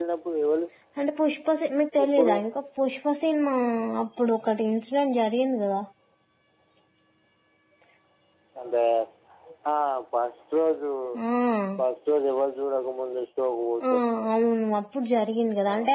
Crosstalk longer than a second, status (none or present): none